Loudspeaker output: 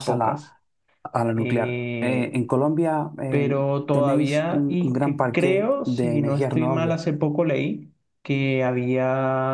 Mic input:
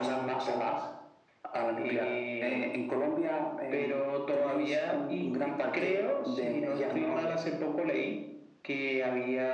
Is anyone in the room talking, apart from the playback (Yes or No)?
No